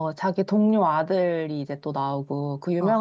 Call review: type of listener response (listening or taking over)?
listening